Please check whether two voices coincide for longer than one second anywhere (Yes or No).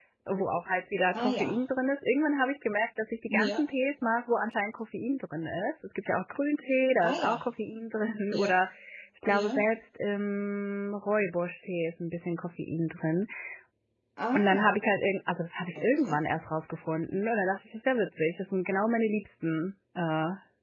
No